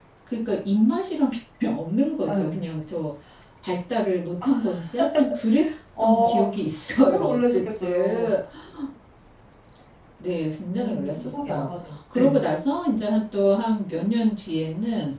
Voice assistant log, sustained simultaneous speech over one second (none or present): present